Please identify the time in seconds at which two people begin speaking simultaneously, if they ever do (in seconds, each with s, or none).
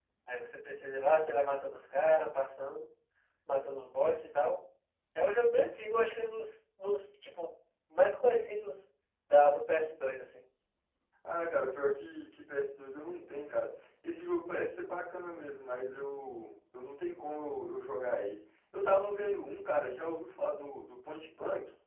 none